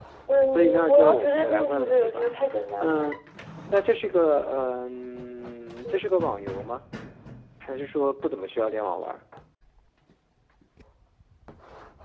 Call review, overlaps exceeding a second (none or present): present